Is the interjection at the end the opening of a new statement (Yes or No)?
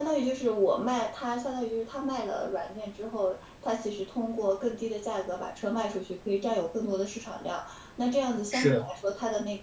No